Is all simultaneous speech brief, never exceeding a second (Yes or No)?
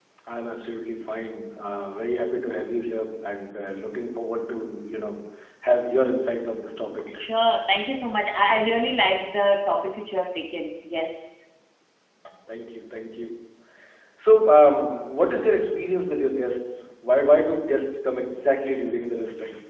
Yes